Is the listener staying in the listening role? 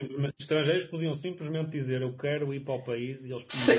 No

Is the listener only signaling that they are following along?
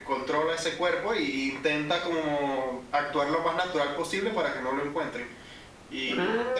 Yes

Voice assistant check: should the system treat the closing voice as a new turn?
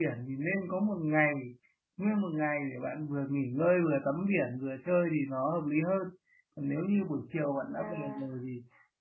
No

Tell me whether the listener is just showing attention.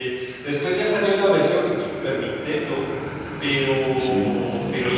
Yes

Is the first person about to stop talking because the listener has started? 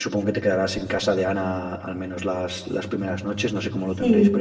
Yes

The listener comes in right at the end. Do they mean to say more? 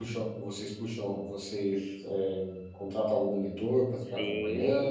Yes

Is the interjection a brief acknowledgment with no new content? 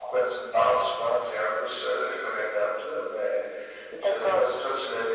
Yes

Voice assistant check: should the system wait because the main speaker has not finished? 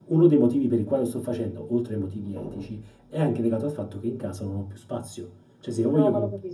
No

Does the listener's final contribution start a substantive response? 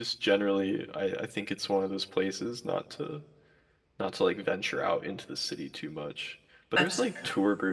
No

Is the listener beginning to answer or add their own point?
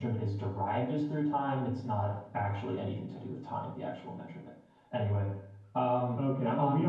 Yes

